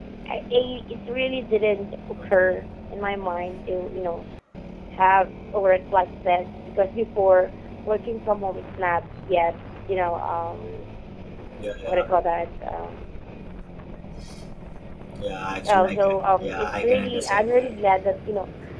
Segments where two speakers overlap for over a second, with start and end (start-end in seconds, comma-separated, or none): 15.7-17.7